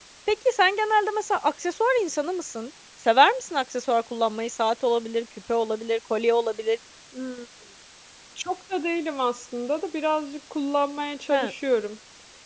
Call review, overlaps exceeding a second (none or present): none